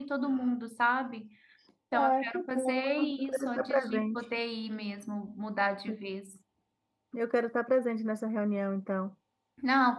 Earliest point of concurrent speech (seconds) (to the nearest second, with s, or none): 2 s